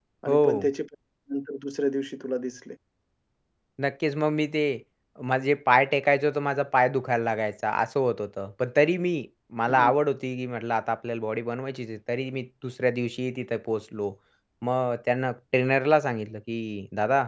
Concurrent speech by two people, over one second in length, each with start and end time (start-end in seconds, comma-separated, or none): none